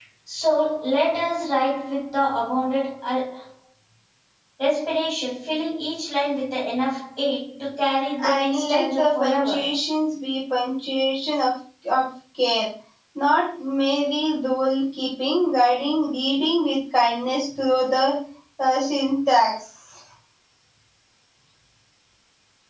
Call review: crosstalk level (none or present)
present